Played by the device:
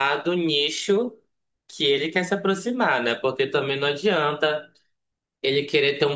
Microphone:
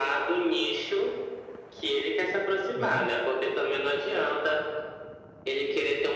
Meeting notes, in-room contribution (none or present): present